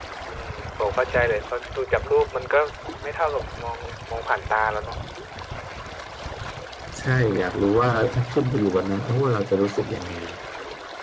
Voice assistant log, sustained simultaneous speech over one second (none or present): none